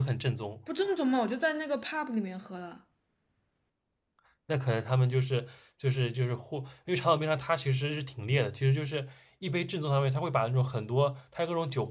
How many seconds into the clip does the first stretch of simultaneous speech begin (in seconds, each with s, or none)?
none